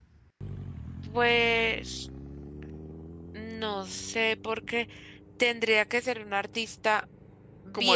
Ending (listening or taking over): taking over